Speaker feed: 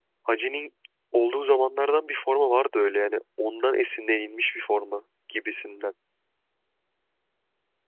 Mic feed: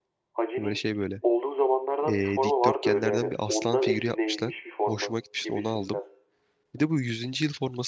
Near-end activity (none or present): present